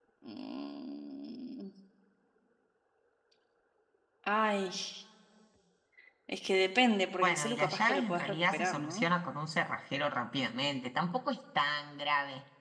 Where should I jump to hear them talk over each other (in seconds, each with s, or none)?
7.2 s